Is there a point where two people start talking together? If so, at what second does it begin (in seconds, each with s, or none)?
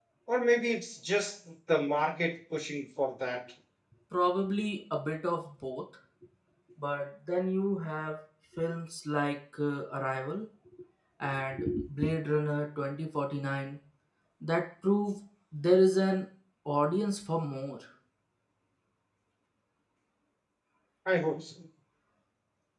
none